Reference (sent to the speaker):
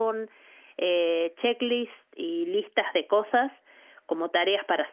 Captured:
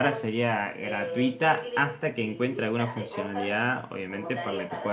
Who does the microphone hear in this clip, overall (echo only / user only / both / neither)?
both